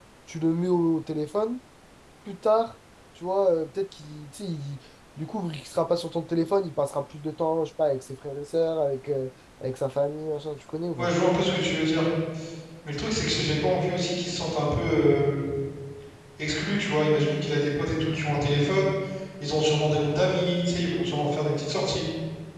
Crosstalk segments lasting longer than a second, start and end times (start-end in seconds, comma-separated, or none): none